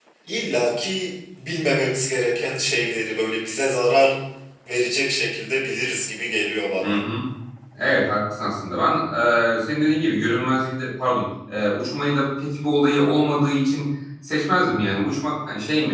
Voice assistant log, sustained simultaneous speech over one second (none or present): none